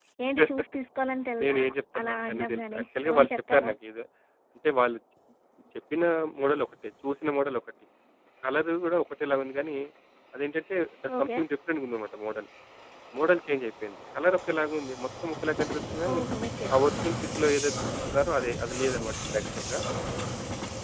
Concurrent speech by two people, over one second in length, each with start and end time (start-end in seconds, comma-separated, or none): 2.0-3.7